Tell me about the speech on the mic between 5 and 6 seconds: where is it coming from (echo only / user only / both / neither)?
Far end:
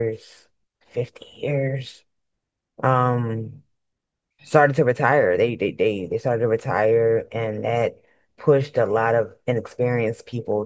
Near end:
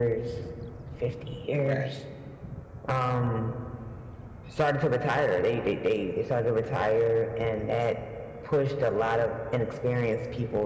echo only